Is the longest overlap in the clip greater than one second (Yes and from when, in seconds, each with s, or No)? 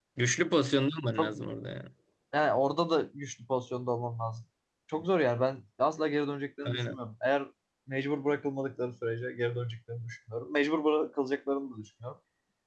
No